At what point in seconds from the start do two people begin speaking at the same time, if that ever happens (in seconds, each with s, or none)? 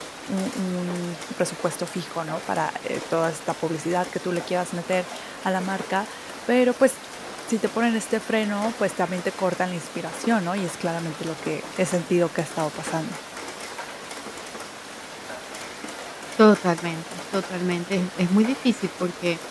none